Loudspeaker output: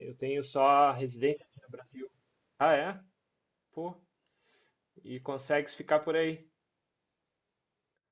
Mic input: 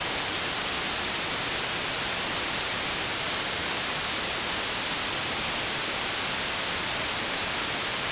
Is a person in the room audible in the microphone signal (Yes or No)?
No